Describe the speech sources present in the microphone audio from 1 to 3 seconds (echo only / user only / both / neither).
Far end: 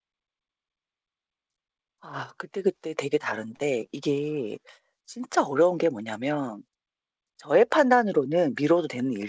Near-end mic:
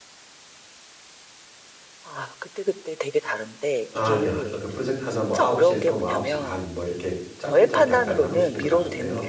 echo only